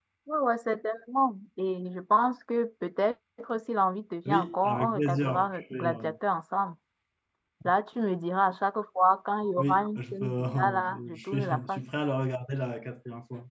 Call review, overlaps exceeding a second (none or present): present